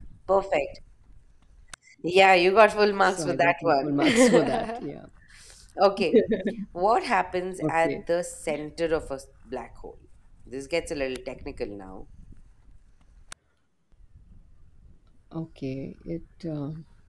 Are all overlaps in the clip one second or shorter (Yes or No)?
No